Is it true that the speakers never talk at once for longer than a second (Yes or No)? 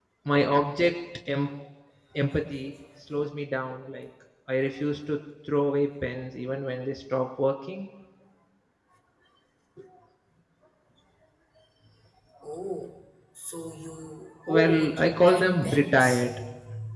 No